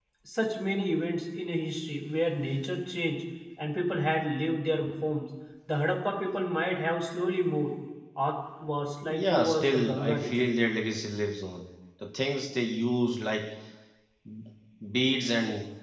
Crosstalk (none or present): present